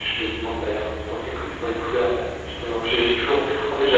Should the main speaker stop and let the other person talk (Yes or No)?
No